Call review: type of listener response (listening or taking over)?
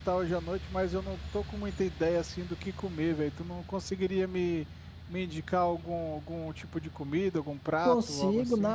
taking over